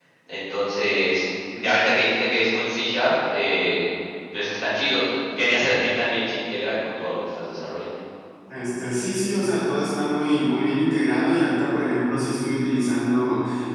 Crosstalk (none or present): none